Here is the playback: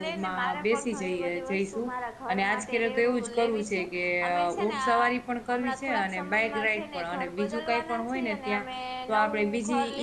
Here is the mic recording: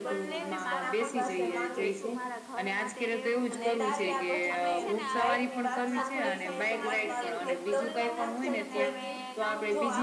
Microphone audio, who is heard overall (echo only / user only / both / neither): both